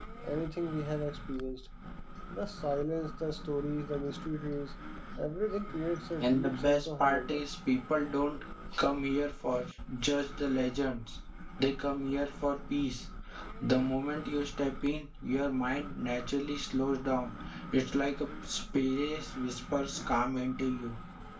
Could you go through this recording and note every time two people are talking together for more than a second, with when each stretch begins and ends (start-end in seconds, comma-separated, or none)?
6.2-7.4